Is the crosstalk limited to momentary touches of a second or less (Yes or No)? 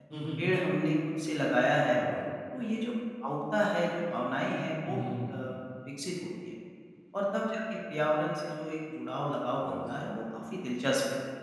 Yes